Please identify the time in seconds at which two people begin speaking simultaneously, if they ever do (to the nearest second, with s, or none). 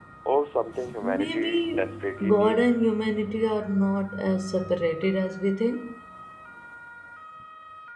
1 s